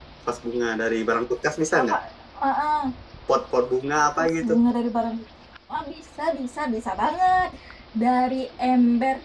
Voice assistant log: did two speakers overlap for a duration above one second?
No

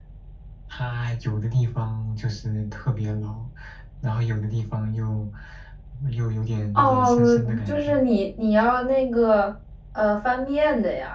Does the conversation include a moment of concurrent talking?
Yes, from 6.8 s

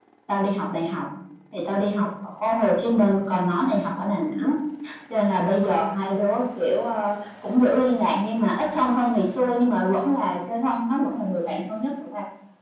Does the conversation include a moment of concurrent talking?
No

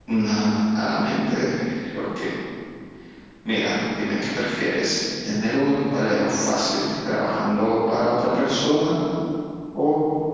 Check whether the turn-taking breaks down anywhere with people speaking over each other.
No

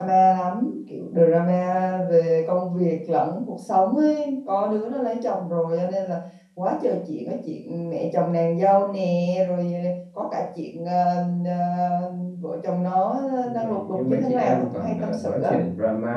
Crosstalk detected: Yes, from 13.4 s

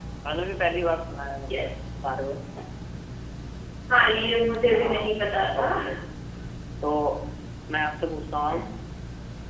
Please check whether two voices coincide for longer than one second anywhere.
No

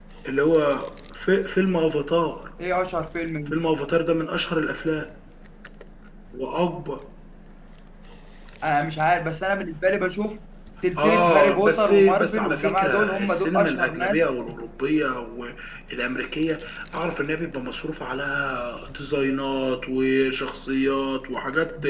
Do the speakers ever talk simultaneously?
Yes, from 11.0 s

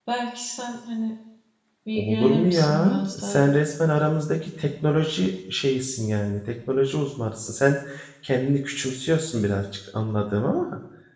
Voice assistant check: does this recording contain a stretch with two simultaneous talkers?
Yes, from 2.0 s

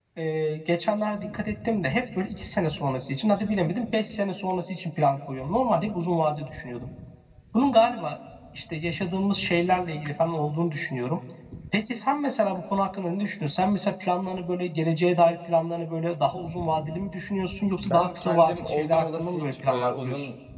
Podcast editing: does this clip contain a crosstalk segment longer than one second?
Yes, from 17.8 s

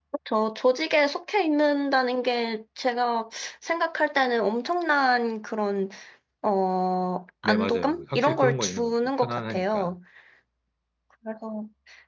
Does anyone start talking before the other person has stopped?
Yes, from 7.4 s

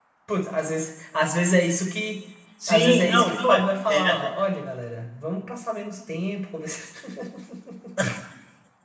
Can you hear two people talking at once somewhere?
Yes, from 2.6 s

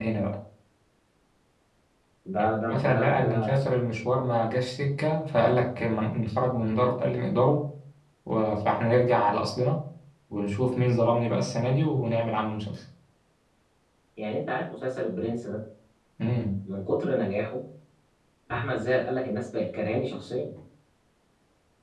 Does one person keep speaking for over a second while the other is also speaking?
Yes, from 2.4 s

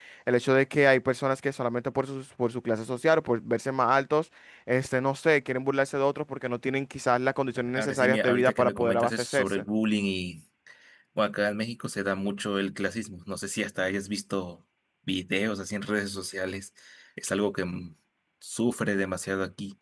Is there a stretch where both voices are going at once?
Yes, from 7.8 s

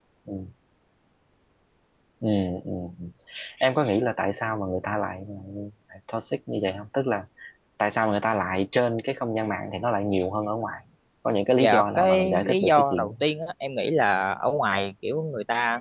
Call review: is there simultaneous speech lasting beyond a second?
Yes, from 11.6 s

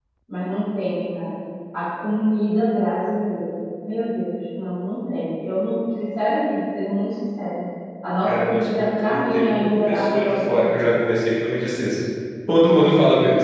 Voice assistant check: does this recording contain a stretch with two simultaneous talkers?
Yes, from 8.2 s

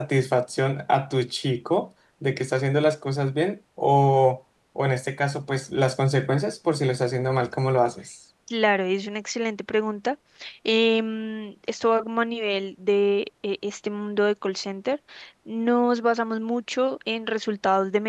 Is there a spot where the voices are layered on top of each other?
No

